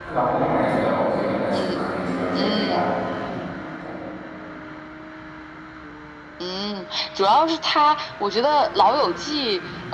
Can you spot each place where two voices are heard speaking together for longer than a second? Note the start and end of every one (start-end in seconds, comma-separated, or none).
none